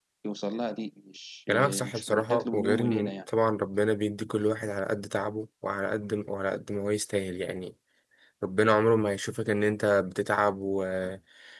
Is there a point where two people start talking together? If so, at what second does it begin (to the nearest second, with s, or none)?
1 s